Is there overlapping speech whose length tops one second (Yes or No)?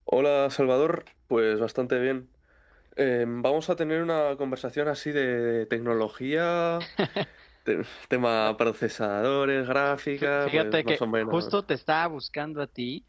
Yes